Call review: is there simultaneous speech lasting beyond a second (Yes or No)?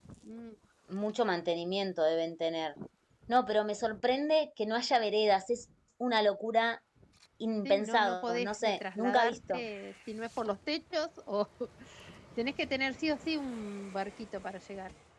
Yes